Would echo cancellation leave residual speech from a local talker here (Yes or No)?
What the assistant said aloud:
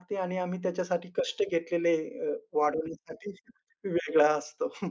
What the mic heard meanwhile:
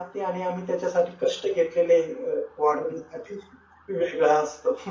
No